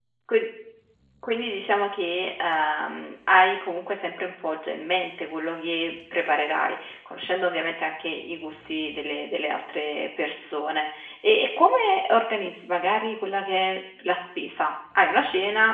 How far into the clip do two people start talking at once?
none

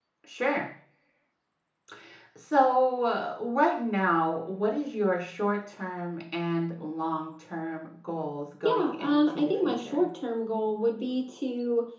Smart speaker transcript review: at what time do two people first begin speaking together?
8.6 s

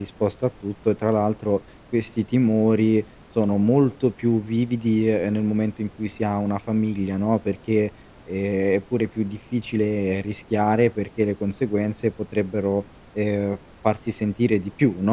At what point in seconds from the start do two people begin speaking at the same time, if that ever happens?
none

